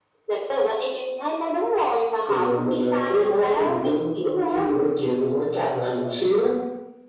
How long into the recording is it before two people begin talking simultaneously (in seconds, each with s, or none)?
2.3 s